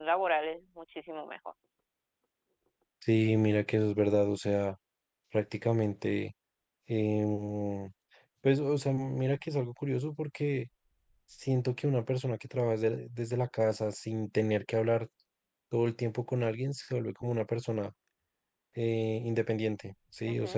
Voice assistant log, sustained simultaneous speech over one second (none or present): none